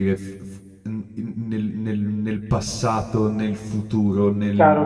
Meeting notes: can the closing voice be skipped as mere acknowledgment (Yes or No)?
No